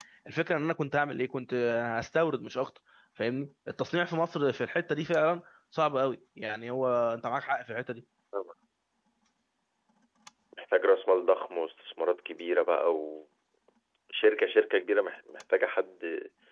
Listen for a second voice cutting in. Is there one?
No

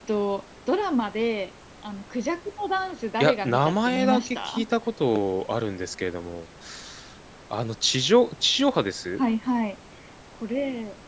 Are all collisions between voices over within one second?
No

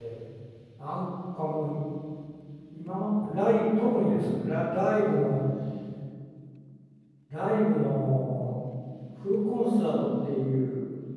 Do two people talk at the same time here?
No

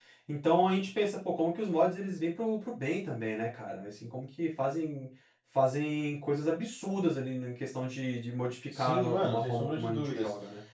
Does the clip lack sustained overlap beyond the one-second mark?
No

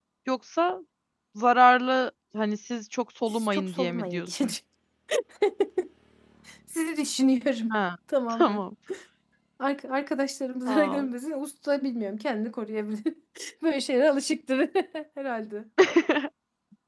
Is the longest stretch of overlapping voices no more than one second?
No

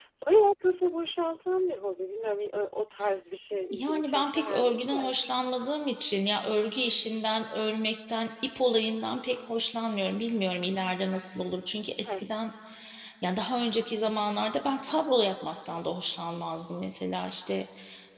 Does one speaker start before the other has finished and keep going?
Yes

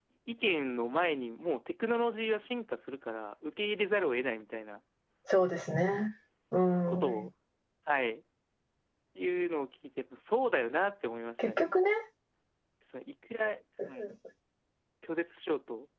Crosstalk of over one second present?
No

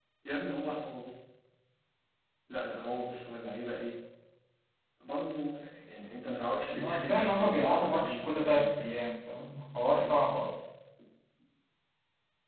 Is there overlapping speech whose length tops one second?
Yes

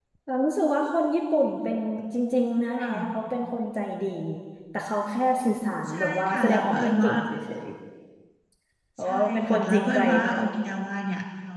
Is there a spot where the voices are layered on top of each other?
Yes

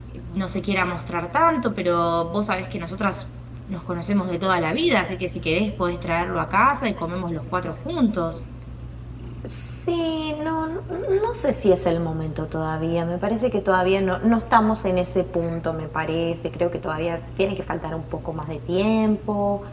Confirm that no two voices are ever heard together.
Yes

